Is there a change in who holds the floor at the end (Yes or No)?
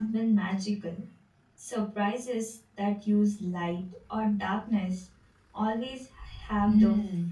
Yes